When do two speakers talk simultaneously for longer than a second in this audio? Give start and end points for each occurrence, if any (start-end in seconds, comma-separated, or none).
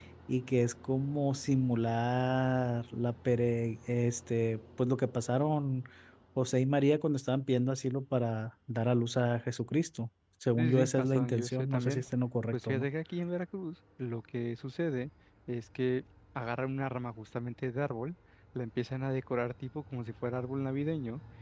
10.6-12.0